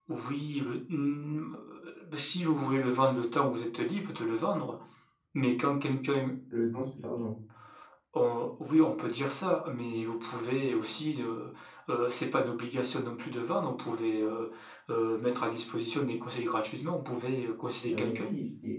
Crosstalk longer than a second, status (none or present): none